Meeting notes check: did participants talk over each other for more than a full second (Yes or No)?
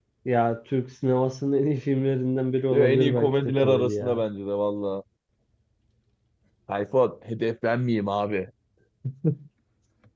Yes